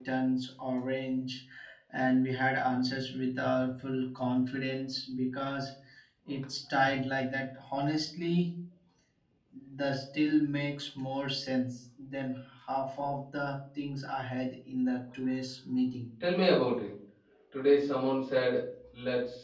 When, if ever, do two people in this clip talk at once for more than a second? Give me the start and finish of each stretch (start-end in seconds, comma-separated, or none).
none